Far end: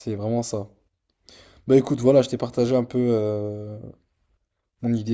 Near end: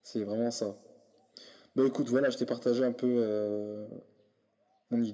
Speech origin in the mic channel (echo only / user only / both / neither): echo only